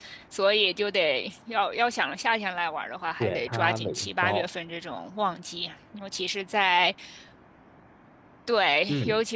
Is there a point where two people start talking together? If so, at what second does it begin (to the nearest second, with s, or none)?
3 s